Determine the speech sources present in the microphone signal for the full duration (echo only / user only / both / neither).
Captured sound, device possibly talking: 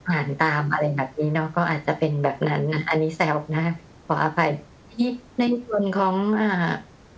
echo only